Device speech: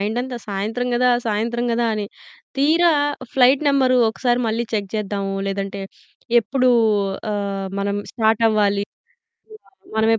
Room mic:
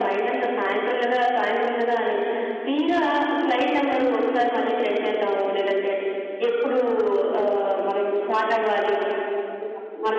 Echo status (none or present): present